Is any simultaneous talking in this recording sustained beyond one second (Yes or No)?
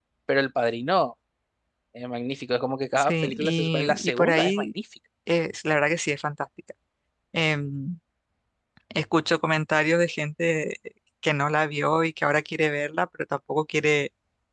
Yes